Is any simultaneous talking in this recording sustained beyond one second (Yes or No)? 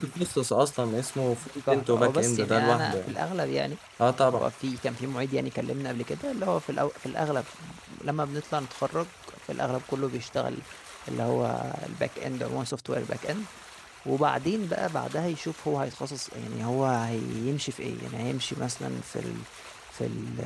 Yes